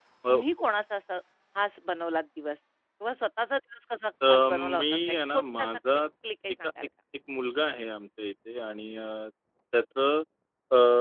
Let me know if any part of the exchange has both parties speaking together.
Yes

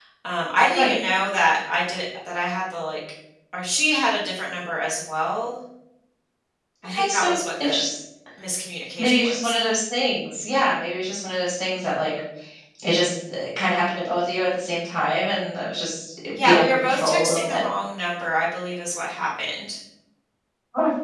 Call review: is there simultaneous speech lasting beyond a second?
Yes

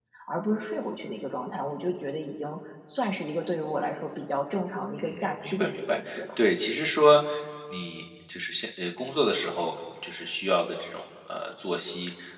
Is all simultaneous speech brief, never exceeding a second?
No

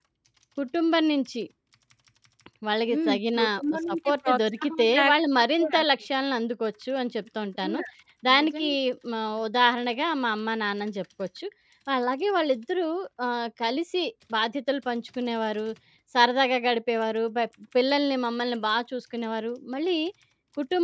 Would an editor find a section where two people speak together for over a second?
Yes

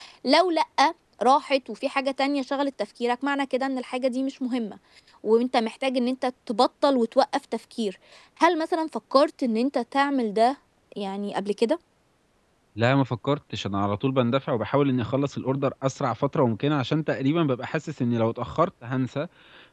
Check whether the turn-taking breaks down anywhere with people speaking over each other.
No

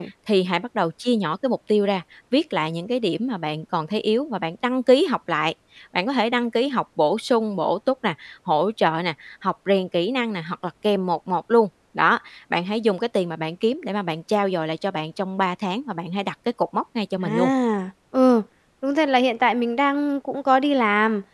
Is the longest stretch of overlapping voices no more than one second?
Yes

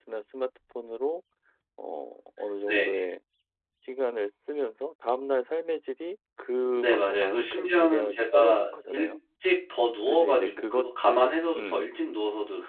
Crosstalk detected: Yes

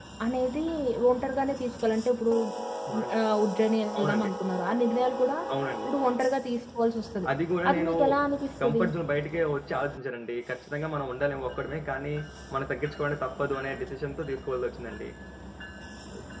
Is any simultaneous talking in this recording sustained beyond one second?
No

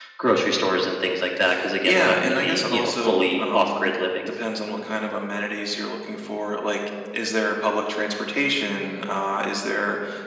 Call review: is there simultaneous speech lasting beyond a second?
Yes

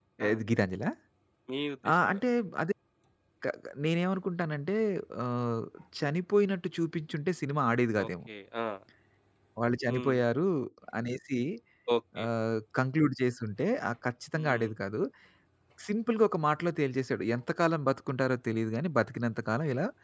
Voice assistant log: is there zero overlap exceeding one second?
Yes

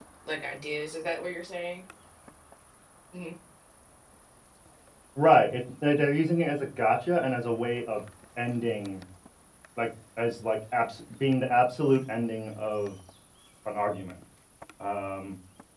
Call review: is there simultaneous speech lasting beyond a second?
No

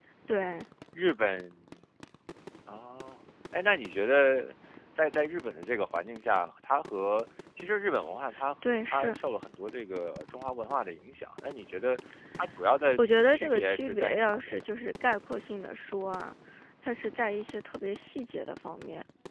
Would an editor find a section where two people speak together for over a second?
Yes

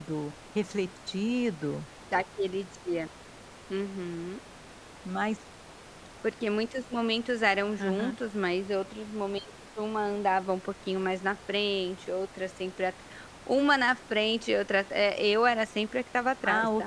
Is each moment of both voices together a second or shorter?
Yes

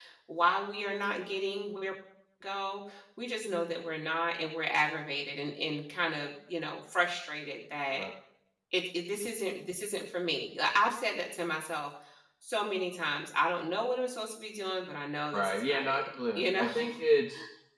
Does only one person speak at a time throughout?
No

